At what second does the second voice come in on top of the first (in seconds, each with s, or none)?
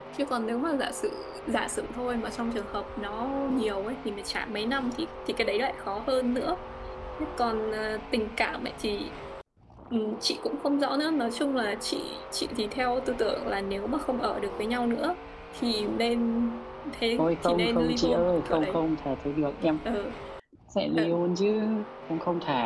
17.2 s